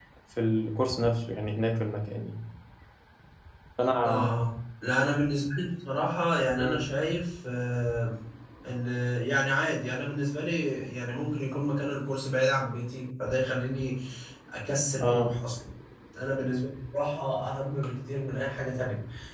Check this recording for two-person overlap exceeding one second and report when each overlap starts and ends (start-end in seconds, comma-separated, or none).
none